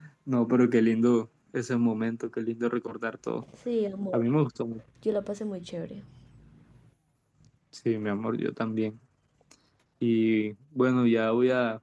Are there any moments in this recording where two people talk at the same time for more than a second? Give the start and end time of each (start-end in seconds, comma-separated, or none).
none